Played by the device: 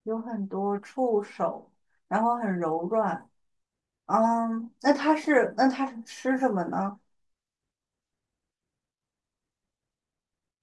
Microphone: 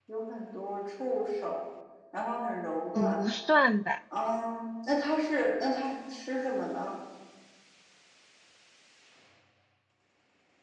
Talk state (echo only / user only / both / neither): both